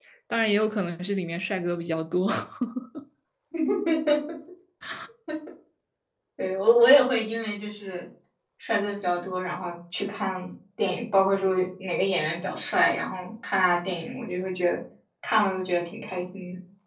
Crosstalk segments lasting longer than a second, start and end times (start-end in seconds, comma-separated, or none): none